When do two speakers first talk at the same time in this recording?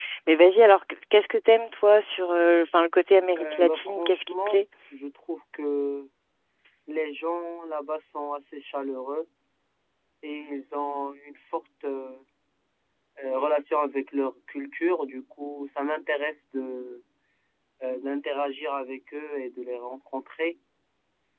3.4 s

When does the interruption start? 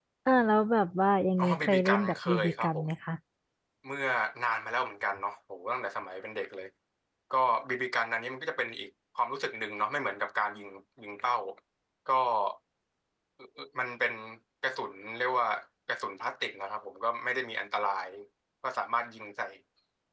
1.4 s

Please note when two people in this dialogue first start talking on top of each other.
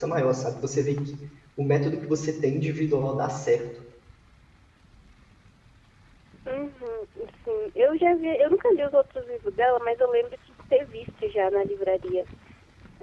none

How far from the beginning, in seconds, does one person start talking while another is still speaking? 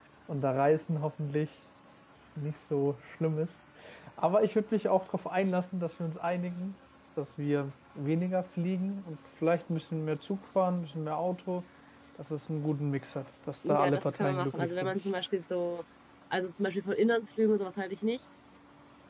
13.6 s

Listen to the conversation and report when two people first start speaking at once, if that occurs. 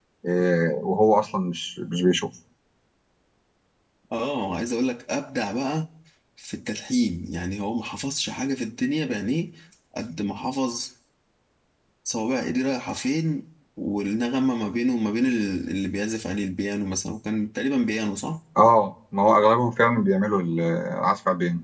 none

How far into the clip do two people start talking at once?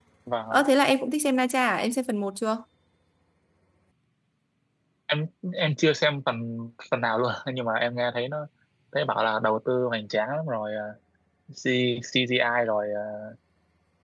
none

